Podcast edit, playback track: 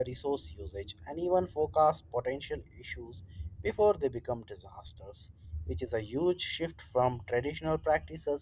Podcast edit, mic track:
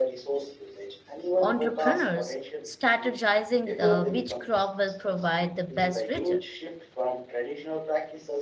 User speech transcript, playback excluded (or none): entrepreneurs strategizing the which crop will provide the best return